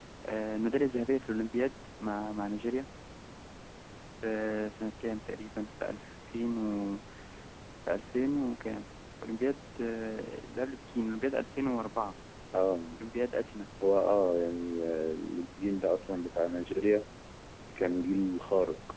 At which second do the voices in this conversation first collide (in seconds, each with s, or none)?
none